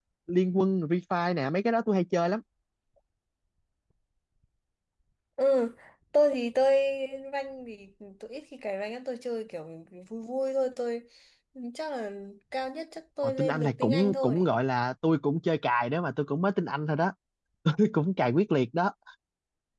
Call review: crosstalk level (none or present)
present